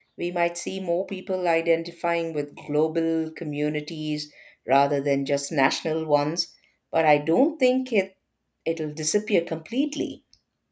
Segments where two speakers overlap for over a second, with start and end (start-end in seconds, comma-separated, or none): none